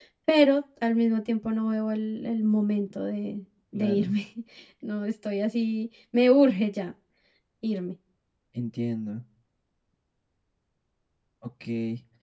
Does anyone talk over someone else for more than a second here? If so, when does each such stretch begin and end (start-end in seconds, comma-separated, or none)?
none